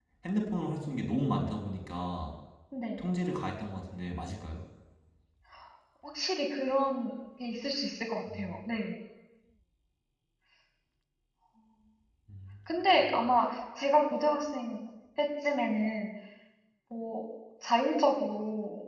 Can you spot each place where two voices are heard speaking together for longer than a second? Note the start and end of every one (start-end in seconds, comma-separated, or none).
none